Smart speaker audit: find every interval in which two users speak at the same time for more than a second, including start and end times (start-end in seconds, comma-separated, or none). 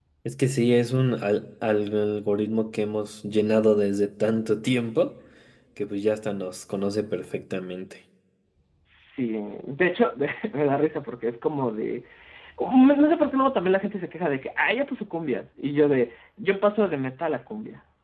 none